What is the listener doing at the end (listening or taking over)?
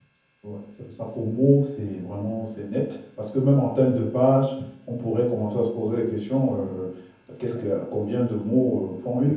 taking over